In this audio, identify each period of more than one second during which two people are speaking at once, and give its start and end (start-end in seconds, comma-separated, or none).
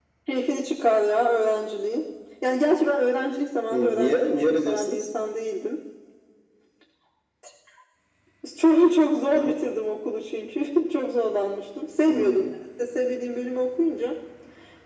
3.7-5.1